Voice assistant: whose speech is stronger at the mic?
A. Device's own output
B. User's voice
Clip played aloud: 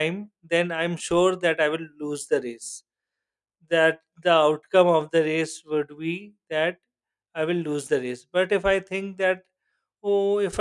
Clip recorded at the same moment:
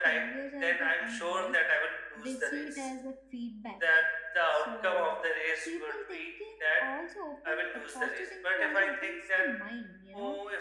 A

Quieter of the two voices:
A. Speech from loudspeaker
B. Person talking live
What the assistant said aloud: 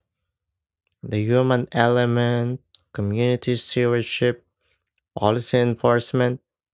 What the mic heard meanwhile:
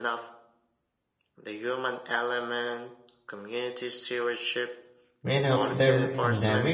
A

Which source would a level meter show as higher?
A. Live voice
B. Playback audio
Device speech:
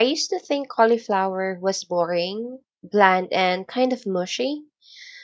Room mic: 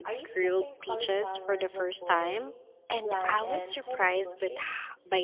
A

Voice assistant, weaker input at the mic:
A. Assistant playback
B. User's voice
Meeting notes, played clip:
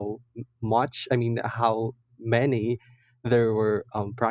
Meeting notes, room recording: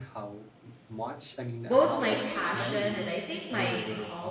A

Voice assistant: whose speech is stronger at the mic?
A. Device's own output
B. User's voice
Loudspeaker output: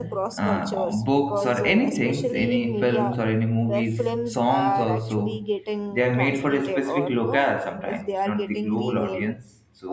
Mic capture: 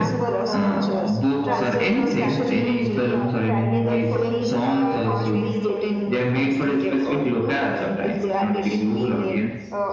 A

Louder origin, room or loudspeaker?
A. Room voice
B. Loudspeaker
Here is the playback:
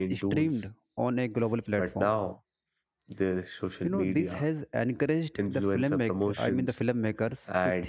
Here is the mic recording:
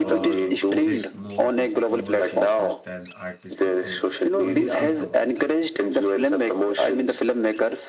B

